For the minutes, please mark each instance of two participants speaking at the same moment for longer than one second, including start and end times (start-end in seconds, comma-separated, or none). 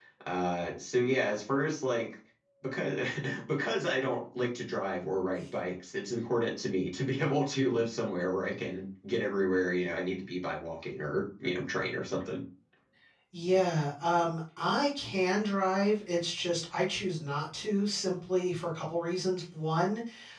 none